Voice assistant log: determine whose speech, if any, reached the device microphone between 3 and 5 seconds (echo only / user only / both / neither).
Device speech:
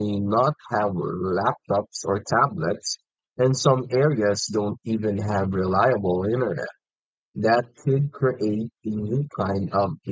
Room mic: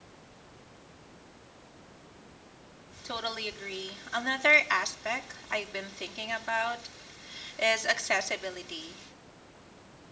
user only